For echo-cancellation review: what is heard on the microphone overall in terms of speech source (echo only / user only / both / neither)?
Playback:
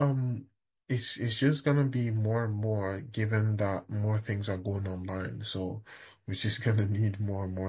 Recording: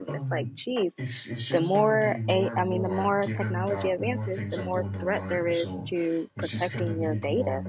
both